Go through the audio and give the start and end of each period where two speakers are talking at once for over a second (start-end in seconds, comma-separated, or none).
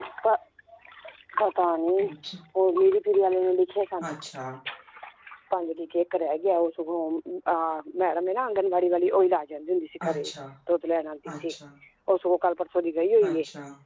none